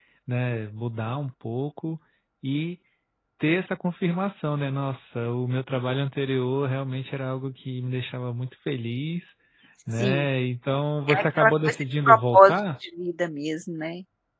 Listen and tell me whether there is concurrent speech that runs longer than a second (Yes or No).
Yes